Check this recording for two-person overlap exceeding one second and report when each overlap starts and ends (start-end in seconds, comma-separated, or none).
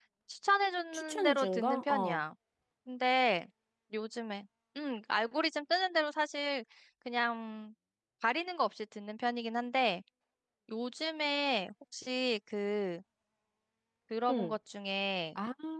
0.9-2.2